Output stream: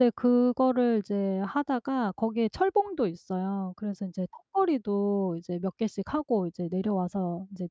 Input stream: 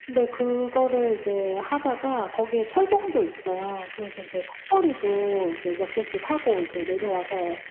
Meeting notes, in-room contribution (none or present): none